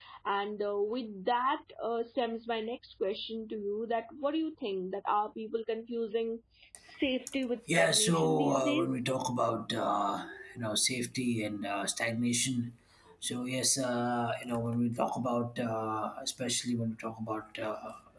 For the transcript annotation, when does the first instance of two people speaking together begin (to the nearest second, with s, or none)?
8 s